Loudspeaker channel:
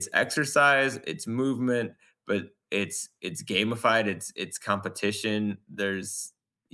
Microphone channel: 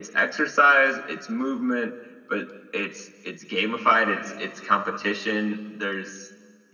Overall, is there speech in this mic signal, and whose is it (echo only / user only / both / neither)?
echo only